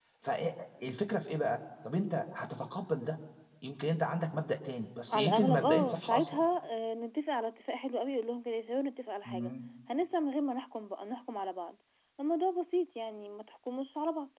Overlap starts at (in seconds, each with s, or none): 5.1 s